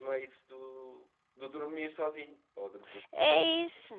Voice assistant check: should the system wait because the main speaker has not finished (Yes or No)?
No